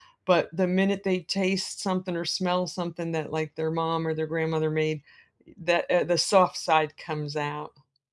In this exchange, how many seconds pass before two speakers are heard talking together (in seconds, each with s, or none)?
none